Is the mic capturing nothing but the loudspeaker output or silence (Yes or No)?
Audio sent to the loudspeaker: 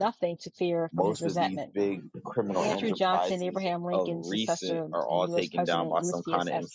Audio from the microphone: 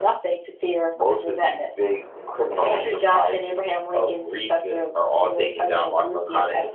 Yes